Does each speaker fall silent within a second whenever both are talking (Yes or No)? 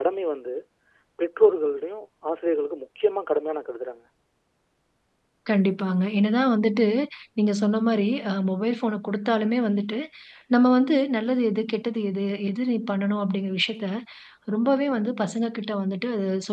Yes